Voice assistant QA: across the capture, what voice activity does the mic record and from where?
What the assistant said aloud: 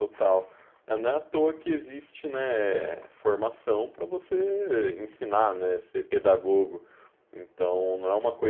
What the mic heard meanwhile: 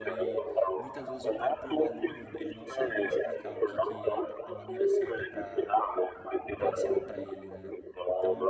both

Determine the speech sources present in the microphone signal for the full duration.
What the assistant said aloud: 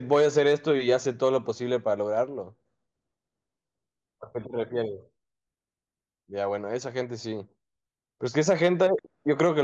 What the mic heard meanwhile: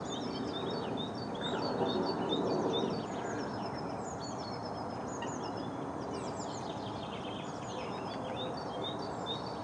neither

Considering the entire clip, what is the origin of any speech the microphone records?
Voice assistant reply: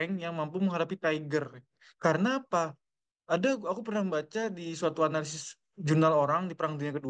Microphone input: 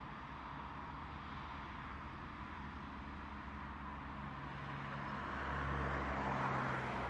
neither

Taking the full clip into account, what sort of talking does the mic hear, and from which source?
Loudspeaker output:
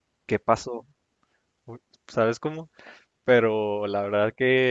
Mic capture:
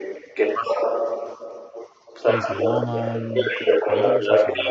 both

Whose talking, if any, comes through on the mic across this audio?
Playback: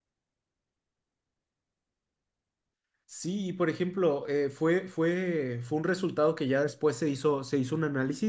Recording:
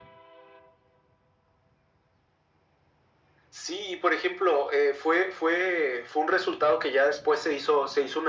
echo only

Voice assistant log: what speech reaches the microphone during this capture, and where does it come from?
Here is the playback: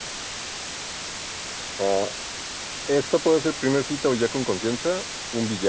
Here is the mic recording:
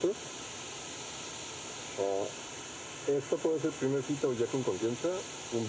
echo only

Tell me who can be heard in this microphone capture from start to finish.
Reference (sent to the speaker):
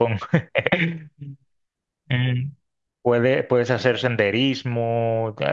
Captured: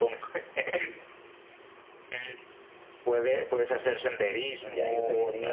both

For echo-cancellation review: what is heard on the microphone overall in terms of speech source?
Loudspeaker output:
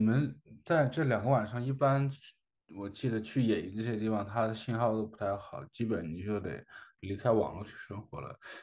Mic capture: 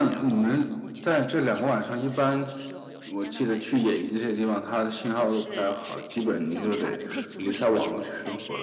both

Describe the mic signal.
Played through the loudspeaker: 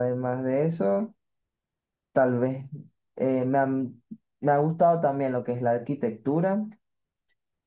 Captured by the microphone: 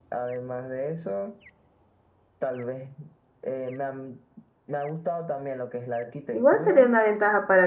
both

